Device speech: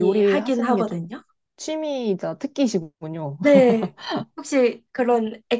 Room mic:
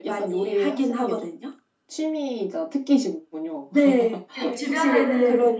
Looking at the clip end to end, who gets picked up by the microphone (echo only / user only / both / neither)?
both